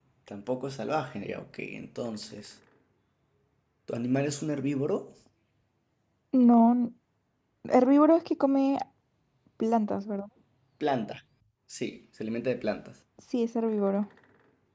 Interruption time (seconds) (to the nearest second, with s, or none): none